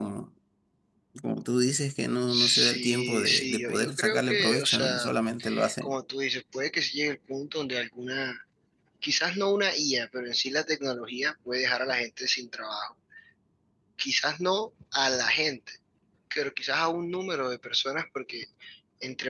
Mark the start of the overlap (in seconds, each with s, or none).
2.3 s